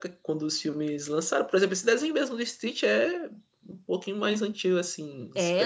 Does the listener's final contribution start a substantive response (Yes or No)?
Yes